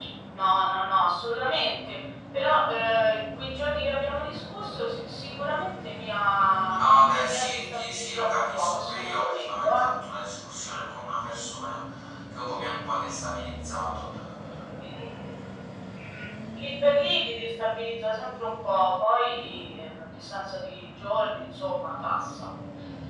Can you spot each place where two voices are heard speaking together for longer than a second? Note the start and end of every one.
7.2-9.9

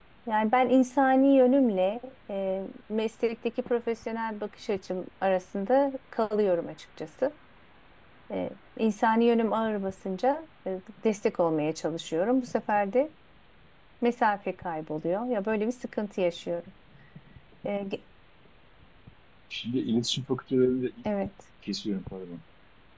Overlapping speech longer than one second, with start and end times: none

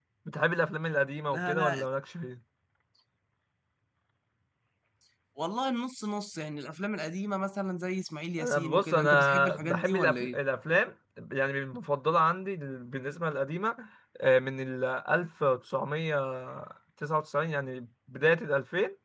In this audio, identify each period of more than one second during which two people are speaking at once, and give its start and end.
8.4-10.4

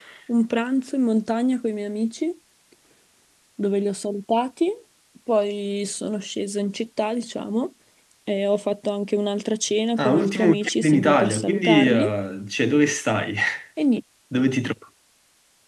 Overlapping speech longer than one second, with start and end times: 10.0-12.1

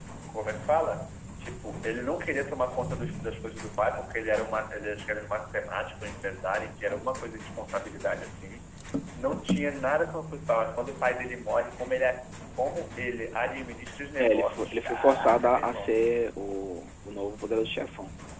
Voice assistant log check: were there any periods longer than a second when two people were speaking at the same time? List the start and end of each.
14.2-15.9

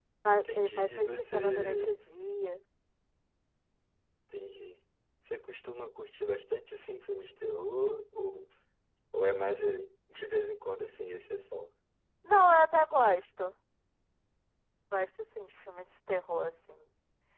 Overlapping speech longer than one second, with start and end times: 0.5-1.9

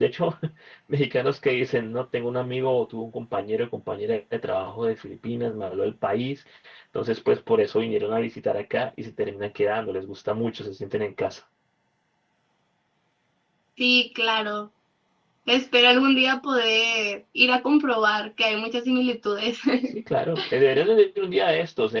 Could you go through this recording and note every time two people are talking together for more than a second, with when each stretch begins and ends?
none

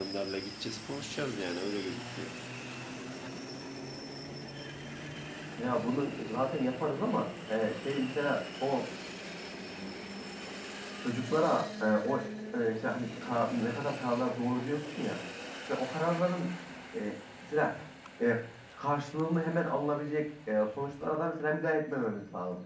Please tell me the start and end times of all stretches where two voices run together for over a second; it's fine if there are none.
none

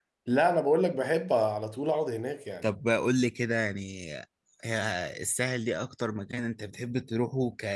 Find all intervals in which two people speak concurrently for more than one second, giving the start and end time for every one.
none

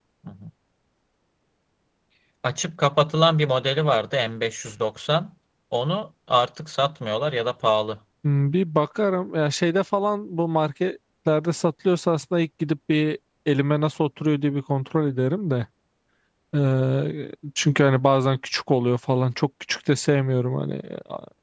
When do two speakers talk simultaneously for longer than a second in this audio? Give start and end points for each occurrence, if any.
none

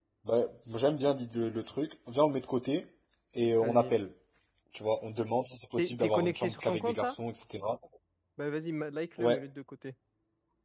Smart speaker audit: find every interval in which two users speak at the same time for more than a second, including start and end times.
5.8-7.2

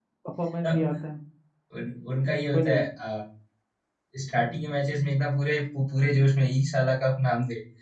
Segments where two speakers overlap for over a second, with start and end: none

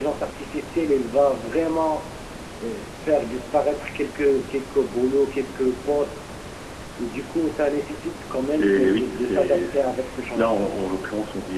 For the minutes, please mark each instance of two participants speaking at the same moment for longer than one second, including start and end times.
8.4-9.7

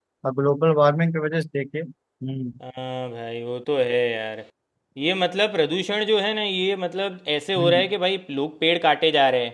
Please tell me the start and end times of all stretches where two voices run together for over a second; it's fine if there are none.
none

